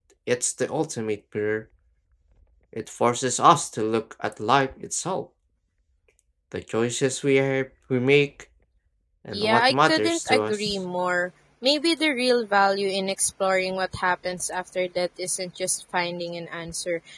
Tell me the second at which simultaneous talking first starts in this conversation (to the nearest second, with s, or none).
9 s